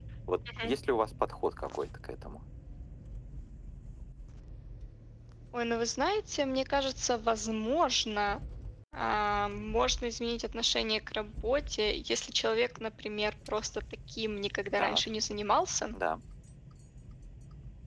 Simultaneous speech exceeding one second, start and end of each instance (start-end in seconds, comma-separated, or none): none